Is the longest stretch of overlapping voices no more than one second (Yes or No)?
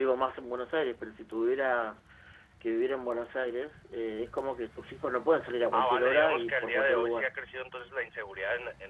No